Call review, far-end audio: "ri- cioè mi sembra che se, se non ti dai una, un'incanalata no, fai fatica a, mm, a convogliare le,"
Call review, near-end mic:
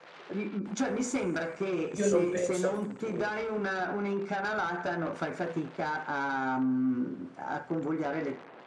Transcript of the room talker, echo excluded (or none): io non penso al futuro,